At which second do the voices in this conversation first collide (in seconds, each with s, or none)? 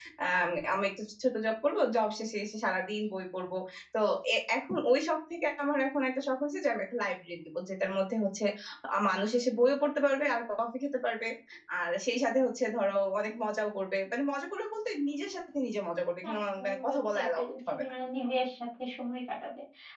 16.2 s